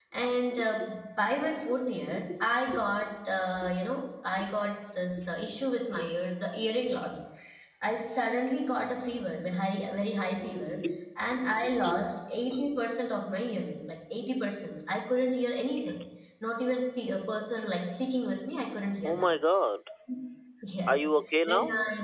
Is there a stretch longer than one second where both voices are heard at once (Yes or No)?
No